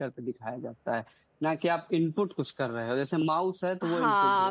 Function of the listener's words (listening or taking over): taking over